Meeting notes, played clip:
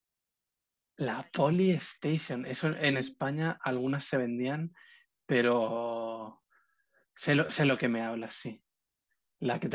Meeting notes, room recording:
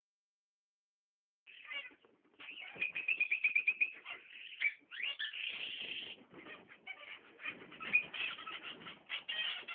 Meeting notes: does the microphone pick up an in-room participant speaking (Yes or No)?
No